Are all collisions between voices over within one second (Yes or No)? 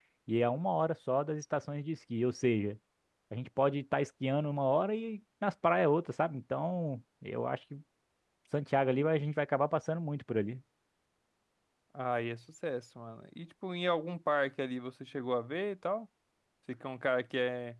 Yes